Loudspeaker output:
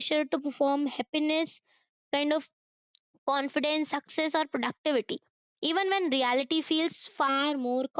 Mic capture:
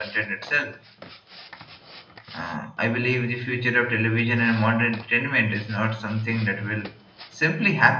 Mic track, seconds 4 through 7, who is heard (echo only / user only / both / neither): user only